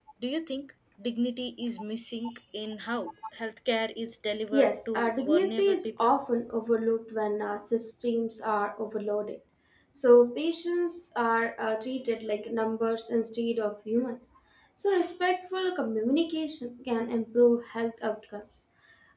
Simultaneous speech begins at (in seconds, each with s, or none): 4.5 s